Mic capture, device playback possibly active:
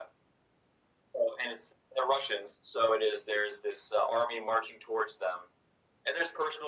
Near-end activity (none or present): none